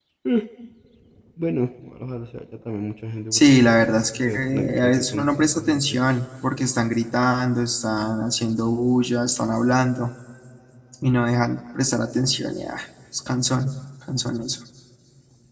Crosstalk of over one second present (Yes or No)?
Yes